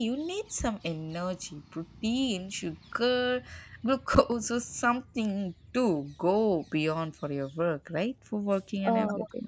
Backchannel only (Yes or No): No